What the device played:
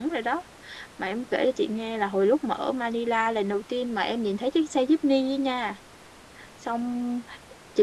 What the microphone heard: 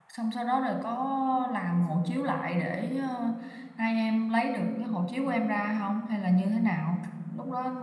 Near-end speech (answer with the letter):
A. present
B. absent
A